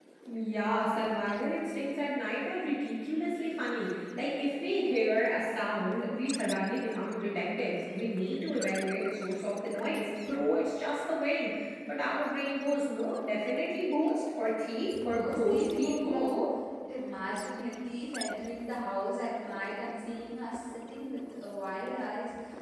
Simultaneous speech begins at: 15.0 s

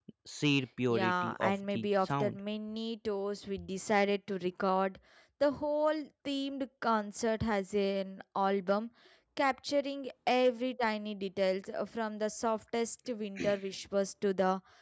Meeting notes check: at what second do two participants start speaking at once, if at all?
0.9 s

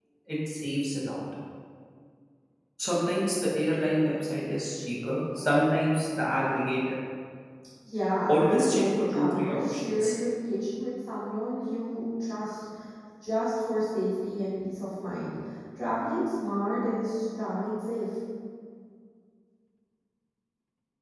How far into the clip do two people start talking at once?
8.3 s

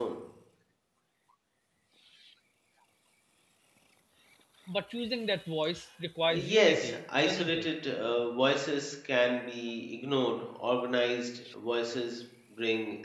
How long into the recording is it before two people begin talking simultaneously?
6.2 s

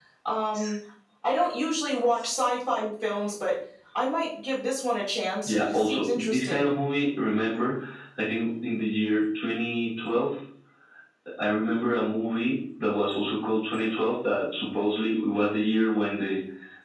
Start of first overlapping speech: 5.5 s

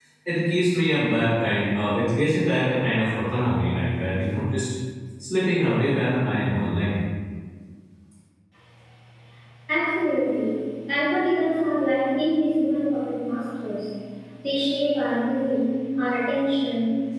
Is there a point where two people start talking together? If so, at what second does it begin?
none

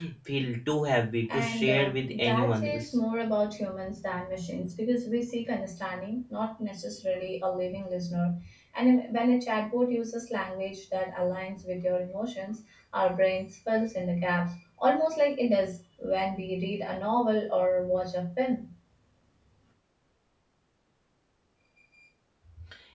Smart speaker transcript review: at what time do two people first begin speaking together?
1.3 s

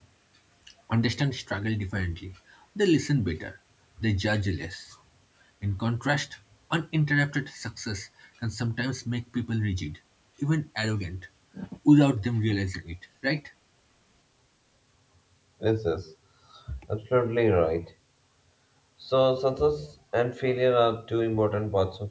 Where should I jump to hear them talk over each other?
none

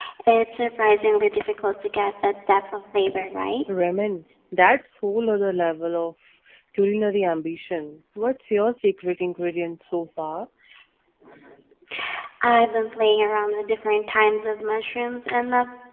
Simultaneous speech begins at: none

